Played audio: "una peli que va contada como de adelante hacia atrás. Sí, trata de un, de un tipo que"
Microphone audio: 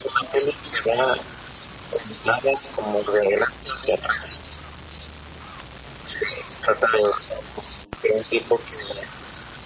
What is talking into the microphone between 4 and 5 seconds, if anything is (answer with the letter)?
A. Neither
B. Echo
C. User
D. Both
B